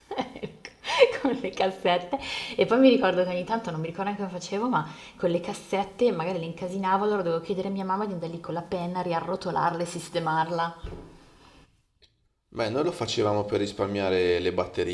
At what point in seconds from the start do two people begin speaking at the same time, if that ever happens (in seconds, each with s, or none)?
none